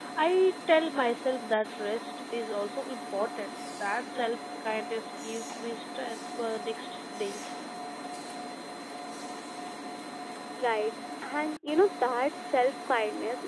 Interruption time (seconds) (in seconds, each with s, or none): none